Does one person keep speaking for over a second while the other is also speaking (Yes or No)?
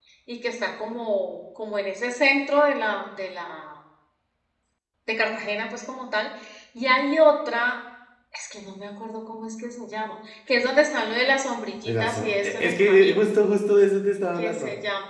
Yes